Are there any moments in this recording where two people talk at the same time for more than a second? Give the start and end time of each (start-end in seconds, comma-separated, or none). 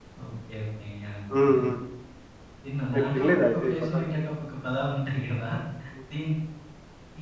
2.9-4.2